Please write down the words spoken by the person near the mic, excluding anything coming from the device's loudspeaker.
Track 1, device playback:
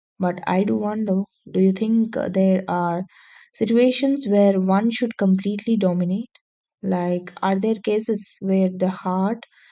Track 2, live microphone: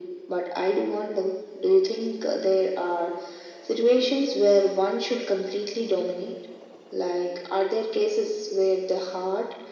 none

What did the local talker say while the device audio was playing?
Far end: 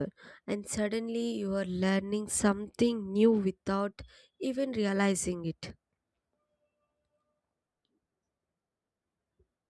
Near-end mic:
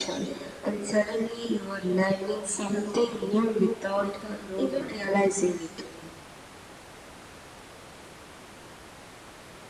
Python roadmap.

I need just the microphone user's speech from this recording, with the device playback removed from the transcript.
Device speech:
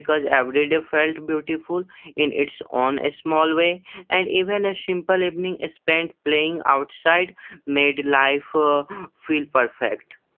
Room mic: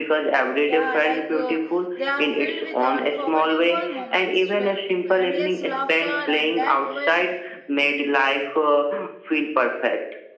Yeah, like uh, they are filled with unforgettable moments, with endless laughter, and that will

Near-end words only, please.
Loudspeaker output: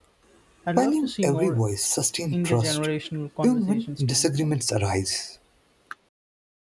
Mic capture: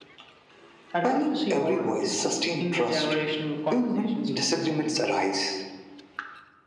none

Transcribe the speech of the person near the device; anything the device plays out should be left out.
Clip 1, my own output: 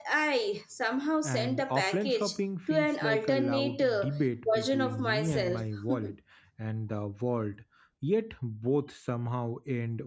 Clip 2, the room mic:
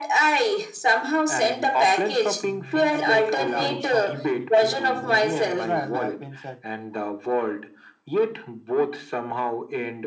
Mm, I think offline shopping betrayed, uh, betrayal happens at

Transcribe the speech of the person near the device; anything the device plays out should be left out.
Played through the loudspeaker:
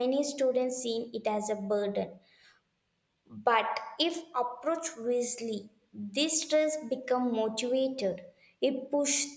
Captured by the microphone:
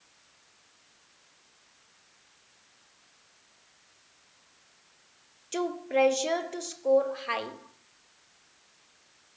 Too pressure to score high

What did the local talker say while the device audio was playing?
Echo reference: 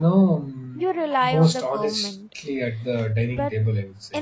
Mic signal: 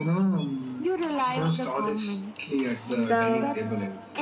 the

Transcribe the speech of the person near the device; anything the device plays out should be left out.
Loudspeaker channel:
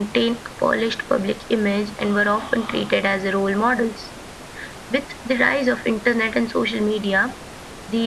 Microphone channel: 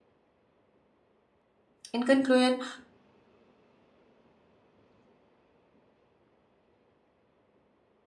in conclusion,

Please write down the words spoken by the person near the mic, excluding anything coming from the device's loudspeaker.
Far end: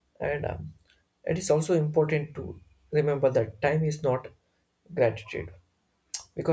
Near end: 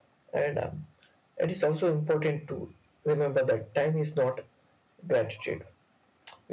none

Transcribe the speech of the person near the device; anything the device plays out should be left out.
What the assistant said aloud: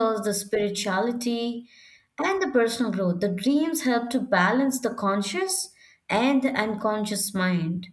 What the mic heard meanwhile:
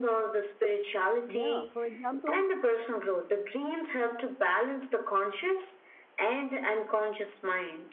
Yeah. For example,

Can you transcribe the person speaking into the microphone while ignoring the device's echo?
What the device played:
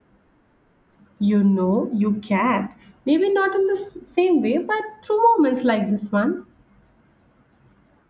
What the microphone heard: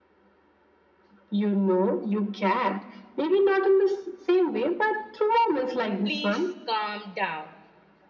Please calm down.

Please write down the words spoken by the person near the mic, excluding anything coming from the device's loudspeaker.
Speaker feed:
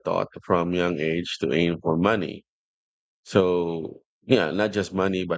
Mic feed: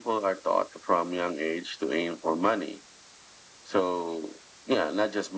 none

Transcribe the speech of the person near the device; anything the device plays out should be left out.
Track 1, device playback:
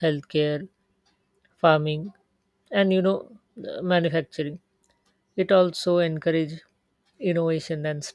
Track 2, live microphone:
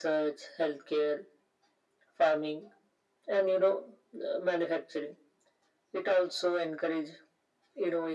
none

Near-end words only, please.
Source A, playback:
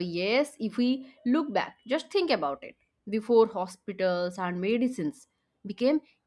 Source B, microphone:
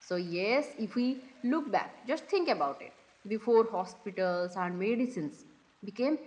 none

